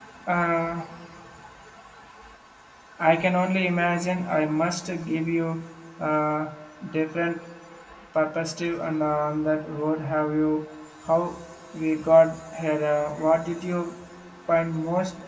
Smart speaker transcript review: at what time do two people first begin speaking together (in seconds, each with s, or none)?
none